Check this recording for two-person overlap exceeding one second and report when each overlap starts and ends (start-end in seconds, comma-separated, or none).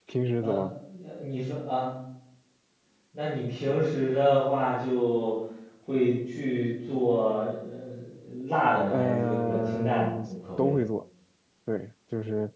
8.9-10.1